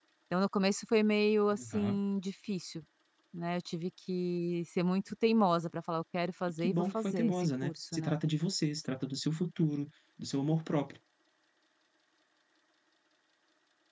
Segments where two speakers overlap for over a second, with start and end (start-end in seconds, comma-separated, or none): 6.6-8.1